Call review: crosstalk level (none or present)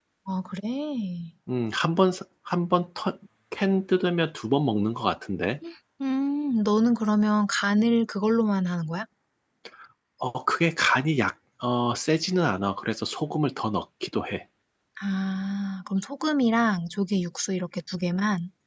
none